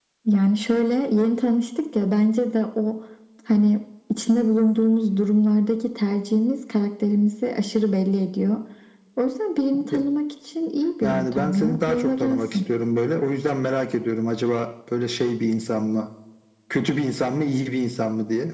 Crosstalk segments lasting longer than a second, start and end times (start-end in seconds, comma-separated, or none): 11.0-12.4